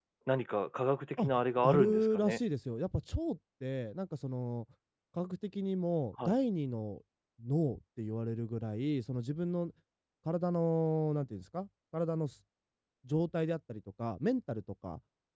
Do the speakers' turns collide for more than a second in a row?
Yes, from 1.2 s

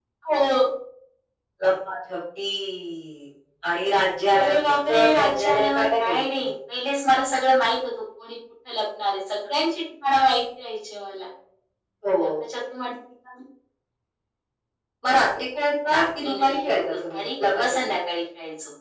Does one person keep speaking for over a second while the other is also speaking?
Yes, from 4.3 s

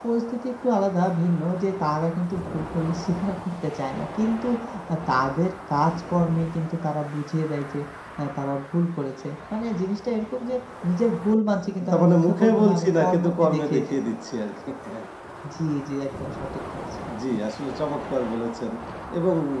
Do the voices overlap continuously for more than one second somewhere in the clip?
Yes, from 11.9 s

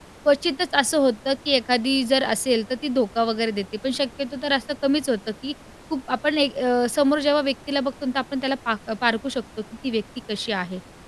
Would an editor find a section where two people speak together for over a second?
No

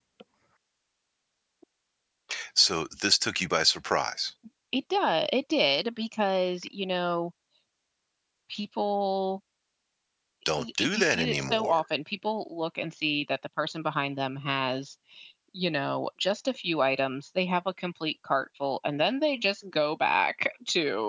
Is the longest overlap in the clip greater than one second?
Yes, from 10.6 s

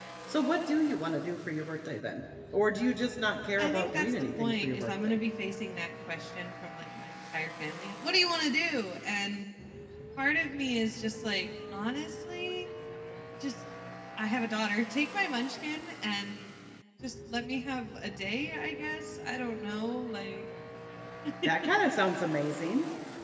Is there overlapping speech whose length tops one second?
Yes, from 3.6 s

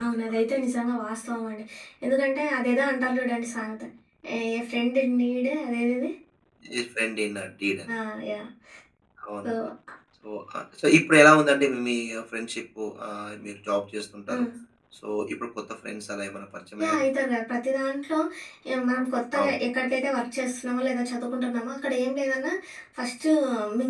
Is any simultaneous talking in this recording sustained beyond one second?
No

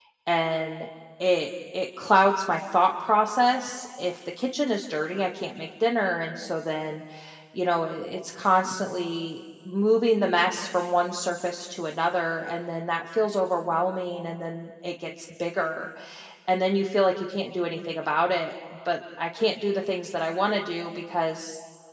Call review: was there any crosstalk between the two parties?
No

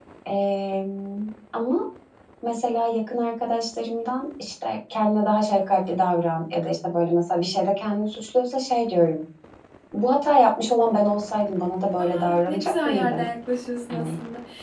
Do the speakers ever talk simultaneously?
Yes, from 12.0 s

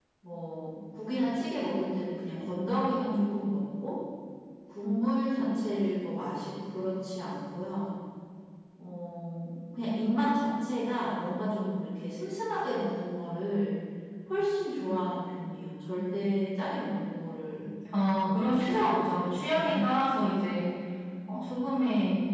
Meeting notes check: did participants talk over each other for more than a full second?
Yes, from 18.2 s

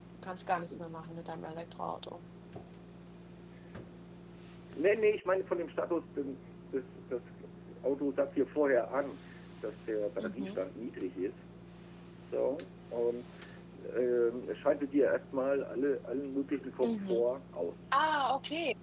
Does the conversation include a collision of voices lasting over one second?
No

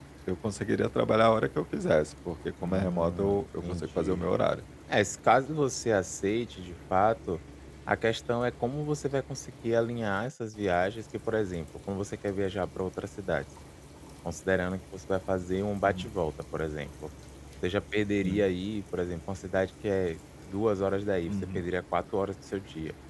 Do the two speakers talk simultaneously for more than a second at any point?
Yes, from 2.6 s

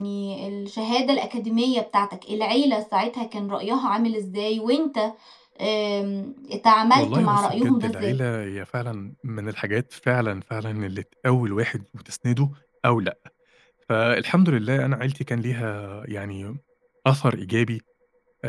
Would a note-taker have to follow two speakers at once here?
Yes, from 6.9 s

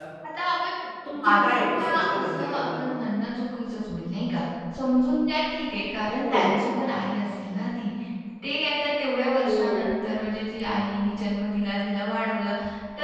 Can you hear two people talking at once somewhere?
Yes, from 1.1 s

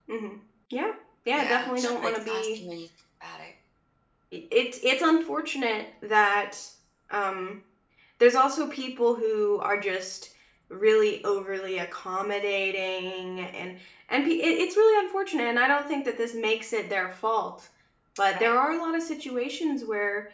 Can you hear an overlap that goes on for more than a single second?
Yes, from 1.4 s

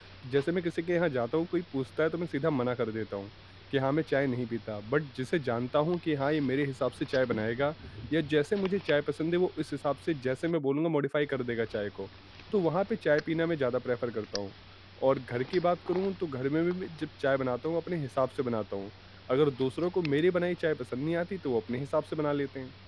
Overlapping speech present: No

